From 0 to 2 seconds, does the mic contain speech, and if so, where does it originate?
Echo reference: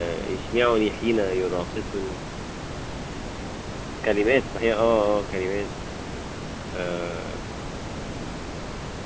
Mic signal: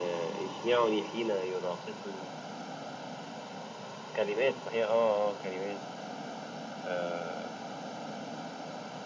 echo only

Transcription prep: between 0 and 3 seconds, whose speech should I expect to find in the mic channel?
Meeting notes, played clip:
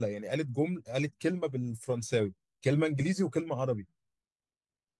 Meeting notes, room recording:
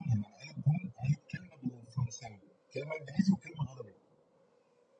echo only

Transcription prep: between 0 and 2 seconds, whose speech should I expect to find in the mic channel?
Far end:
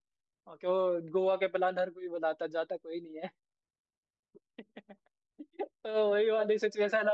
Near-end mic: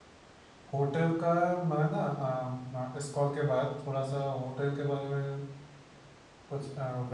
user only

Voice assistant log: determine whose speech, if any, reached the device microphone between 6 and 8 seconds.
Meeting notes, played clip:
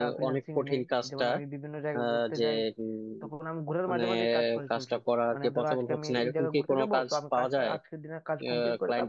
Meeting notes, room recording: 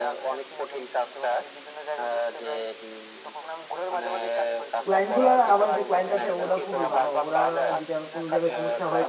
both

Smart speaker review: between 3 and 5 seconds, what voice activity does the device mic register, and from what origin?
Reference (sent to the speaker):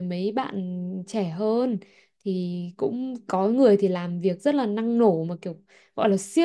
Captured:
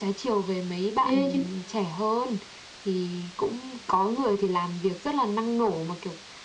echo only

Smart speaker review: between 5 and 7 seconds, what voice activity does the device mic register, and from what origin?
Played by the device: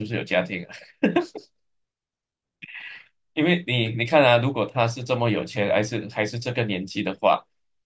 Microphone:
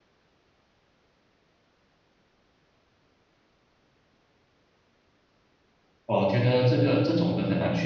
user only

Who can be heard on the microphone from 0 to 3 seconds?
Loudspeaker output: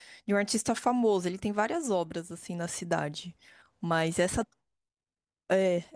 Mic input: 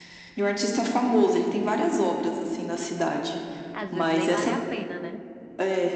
echo only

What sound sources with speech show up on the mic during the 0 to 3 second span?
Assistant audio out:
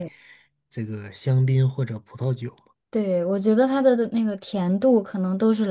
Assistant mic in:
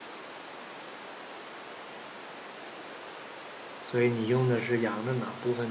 neither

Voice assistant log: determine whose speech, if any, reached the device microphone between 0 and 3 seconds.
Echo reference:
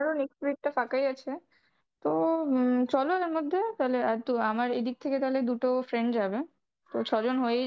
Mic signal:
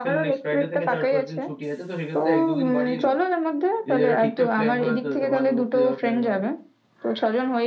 both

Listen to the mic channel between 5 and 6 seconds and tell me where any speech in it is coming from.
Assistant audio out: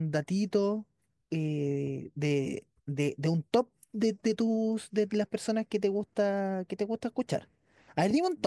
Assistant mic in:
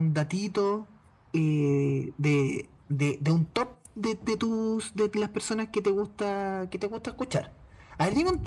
echo only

